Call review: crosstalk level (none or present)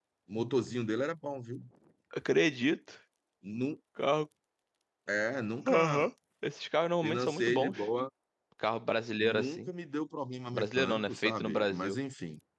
present